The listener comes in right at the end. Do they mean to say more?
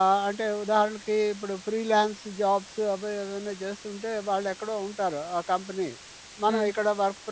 No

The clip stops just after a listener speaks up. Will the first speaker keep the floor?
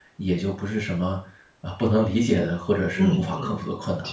No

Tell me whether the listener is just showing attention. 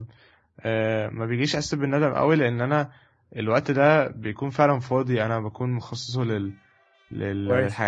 Yes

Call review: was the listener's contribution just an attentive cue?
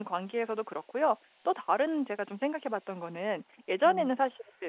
Yes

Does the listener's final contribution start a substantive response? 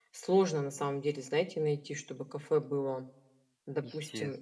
No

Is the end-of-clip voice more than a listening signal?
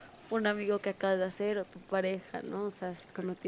No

